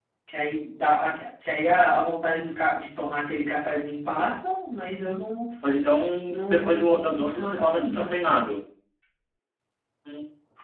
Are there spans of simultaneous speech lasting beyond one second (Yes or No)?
Yes